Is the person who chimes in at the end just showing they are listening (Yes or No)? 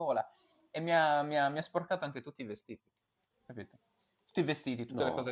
Yes